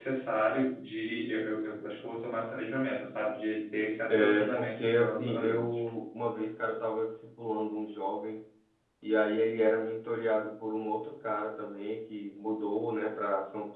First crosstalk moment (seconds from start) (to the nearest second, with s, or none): 4 s